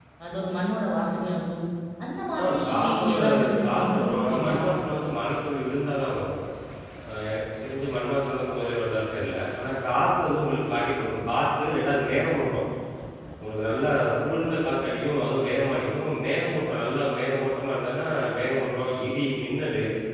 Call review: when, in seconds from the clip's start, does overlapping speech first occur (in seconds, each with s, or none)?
2.4 s